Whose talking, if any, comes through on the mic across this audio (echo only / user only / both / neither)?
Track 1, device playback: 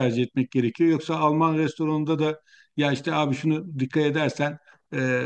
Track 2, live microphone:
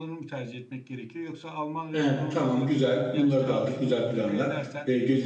both